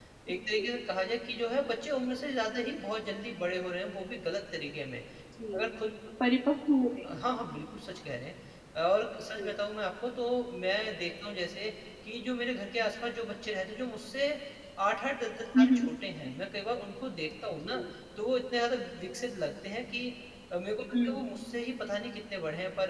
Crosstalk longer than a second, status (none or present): none